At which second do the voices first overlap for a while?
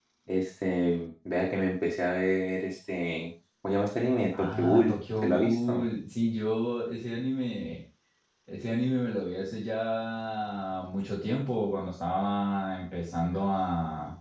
4.3 s

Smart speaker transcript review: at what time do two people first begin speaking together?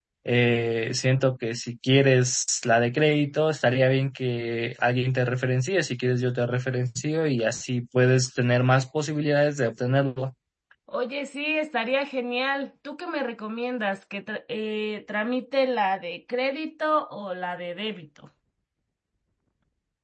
none

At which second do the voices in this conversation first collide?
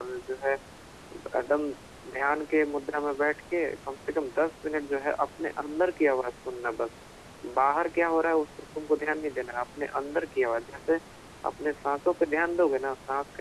none

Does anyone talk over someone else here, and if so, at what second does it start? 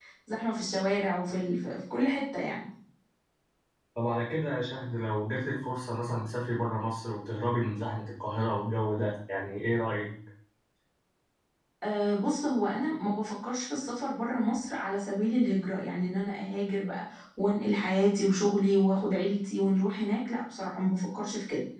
none

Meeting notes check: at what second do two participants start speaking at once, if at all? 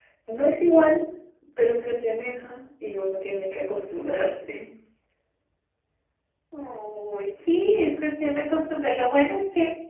none

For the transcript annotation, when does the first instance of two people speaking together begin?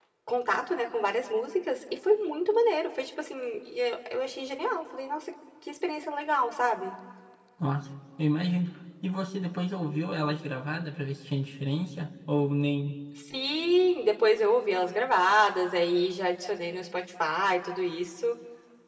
none

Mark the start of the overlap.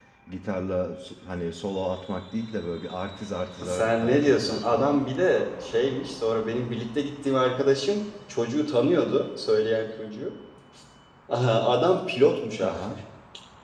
3.6 s

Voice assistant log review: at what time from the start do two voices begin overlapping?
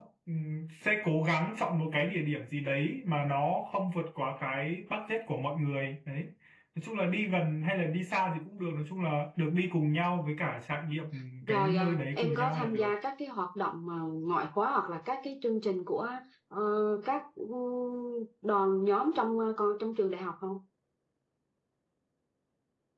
11.5 s

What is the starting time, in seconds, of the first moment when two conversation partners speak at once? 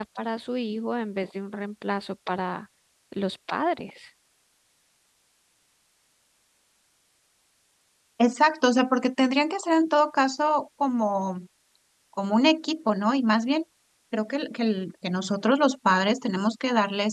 none

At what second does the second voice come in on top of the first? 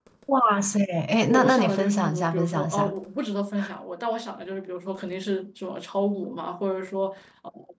1.3 s

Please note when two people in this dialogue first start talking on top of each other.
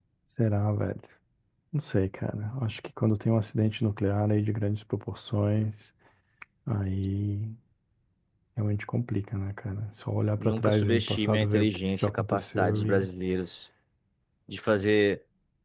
10.4 s

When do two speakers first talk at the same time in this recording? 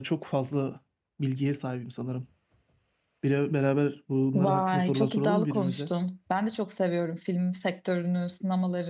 4.3 s

